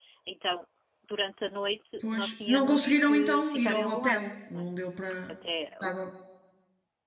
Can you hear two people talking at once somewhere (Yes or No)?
Yes